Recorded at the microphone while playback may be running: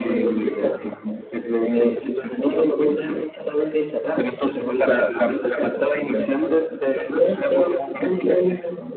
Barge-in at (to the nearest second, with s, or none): 0 s